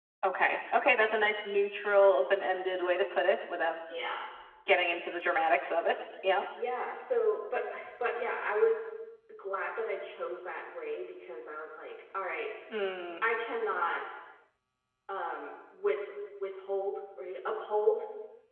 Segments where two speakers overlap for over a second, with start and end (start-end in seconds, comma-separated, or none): none